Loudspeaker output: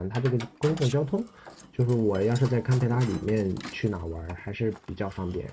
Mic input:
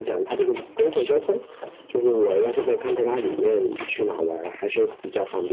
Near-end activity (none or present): none